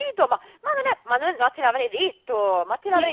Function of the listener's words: taking over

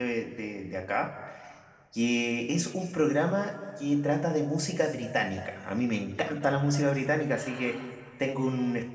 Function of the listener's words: listening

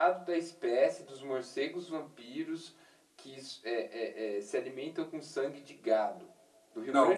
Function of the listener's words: taking over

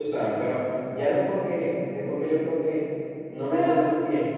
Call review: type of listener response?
listening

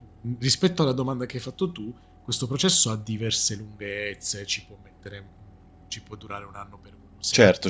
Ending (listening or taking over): taking over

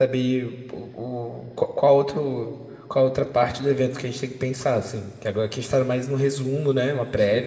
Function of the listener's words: taking over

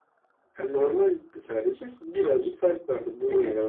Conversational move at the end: taking over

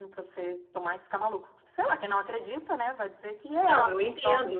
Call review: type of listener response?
taking over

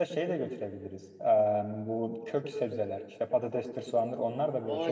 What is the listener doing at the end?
taking over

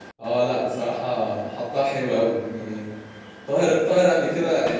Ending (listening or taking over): listening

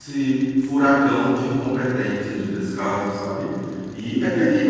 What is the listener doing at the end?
listening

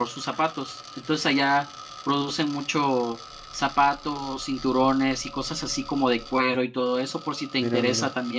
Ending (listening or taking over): listening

